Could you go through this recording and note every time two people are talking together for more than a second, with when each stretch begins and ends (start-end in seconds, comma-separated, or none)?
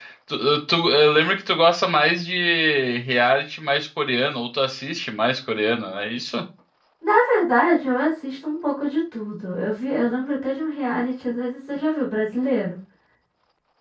none